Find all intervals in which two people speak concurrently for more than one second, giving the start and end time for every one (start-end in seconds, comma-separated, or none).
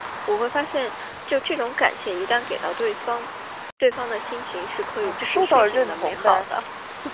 5.0-6.5